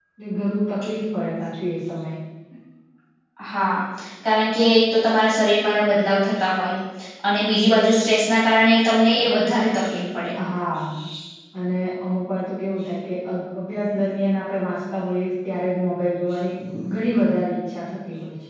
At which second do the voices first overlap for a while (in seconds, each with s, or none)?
none